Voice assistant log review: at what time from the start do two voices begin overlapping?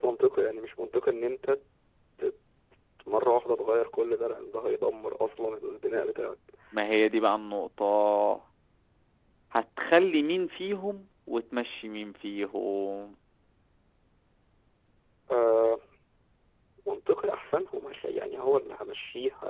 none

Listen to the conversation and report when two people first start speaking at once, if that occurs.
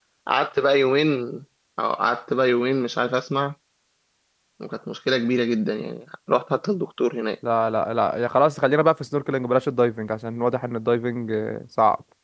none

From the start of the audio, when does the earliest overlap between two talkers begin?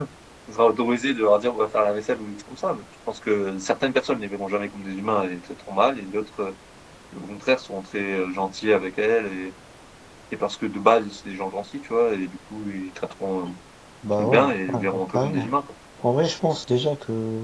14 s

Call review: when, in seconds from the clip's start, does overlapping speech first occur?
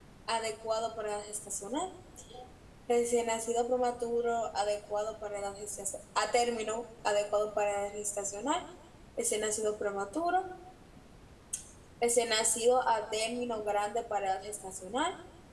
none

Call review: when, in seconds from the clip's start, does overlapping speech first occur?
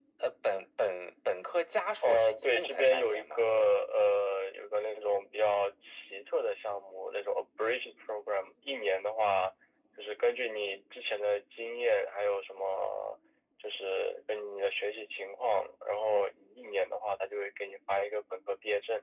2 s

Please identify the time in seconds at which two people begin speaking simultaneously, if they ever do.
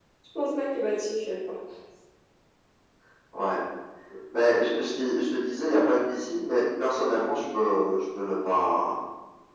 none

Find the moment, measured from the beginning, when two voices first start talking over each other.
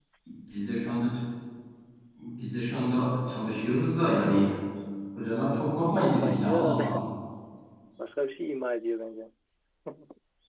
6 s

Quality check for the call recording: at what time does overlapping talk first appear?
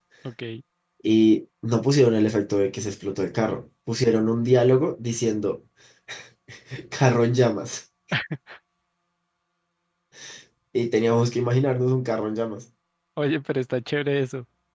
none

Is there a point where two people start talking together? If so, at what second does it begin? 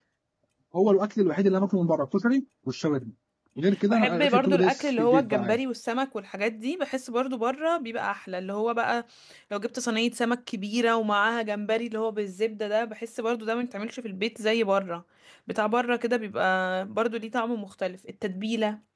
4 s

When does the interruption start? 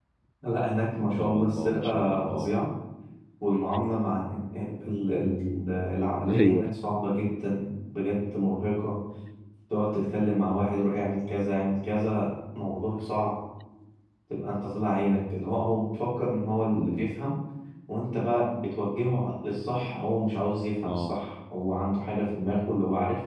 1 s

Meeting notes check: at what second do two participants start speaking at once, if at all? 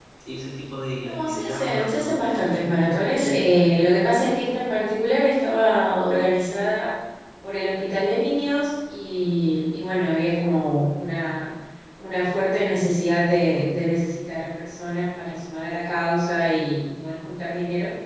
1 s

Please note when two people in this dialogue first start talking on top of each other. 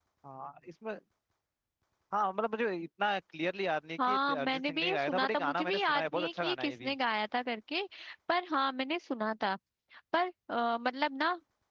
4 s

